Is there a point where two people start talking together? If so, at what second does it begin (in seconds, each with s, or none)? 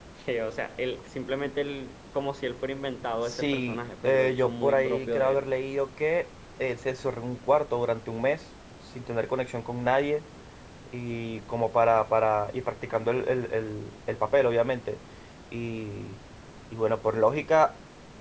3.2 s